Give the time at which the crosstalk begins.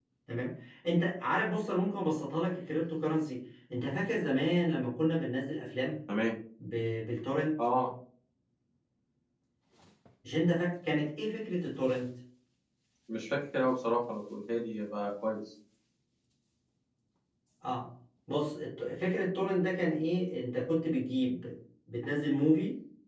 none

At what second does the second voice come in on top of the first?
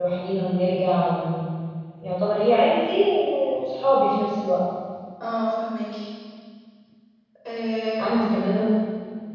none

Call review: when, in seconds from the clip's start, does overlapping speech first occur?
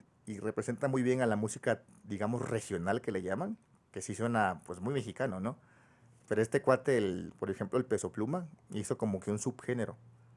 none

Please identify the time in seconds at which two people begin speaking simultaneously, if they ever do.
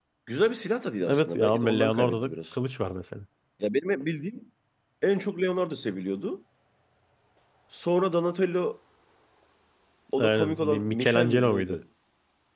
1.1 s

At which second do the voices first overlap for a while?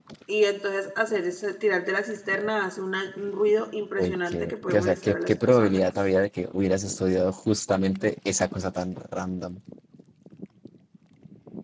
4.0 s

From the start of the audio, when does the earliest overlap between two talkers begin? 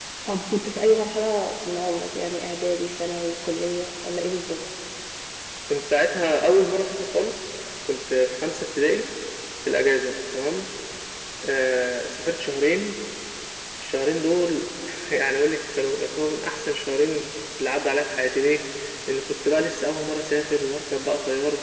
none

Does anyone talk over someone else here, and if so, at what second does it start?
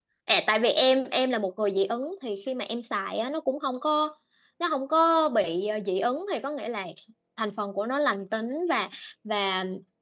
none

